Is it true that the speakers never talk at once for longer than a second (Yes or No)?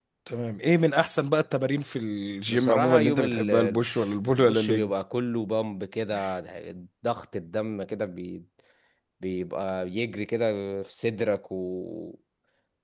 No